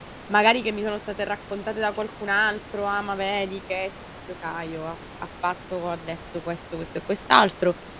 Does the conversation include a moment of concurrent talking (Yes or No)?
No